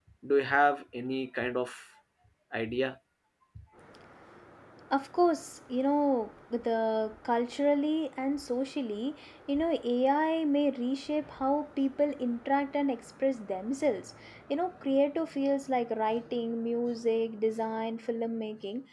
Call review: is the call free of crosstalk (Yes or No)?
Yes